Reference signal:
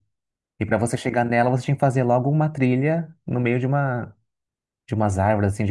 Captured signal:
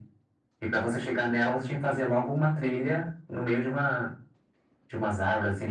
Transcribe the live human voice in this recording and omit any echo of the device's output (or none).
none